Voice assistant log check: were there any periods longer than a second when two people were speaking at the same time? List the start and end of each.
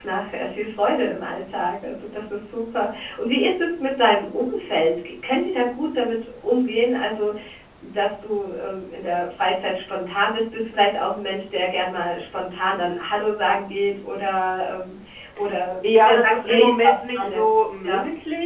16.0-17.4

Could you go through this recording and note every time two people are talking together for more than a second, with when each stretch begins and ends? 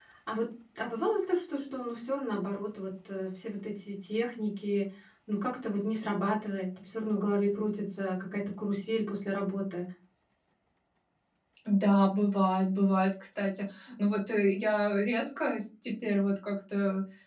none

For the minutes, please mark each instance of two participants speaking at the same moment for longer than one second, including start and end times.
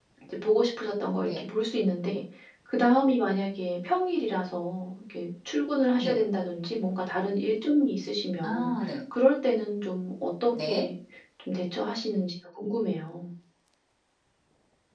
none

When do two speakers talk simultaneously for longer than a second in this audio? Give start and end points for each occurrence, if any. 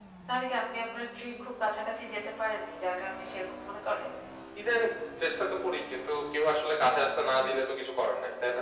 none

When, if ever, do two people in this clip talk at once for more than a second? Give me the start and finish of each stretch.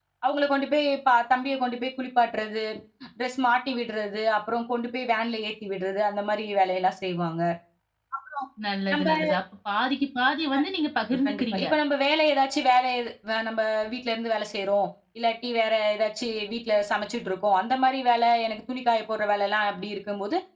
none

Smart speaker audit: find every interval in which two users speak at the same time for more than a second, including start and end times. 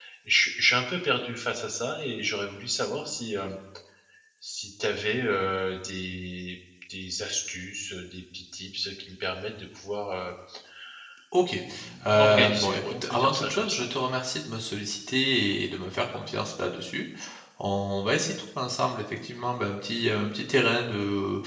12.1-13.8

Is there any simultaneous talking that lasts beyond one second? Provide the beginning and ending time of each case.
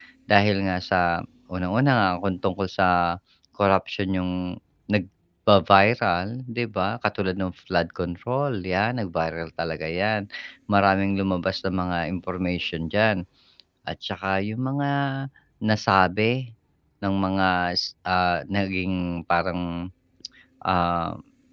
none

